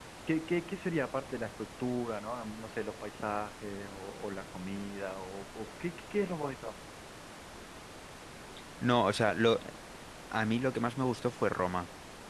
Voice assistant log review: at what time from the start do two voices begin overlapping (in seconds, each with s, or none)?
none